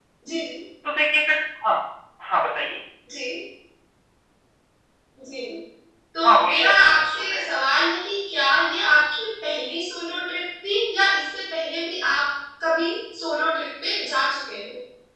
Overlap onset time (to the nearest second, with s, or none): 6 s